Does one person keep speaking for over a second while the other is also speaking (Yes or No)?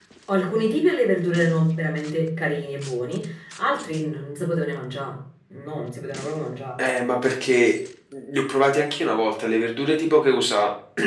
No